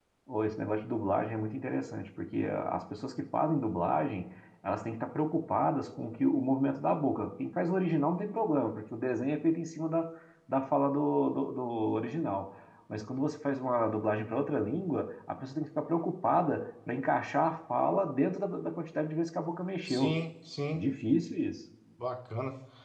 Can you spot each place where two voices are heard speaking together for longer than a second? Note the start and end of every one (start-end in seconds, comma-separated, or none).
none